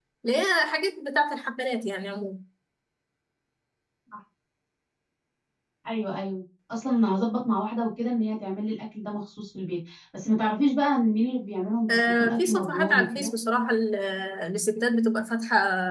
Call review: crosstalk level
present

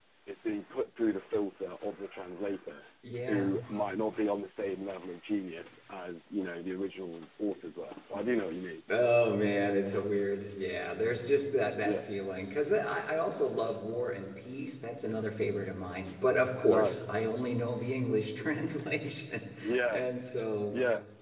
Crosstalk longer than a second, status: none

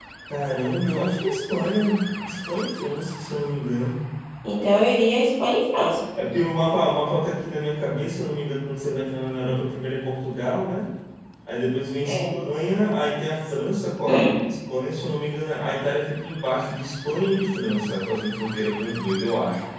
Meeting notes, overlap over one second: none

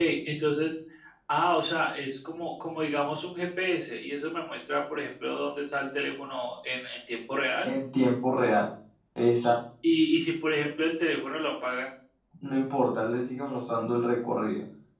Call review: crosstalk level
none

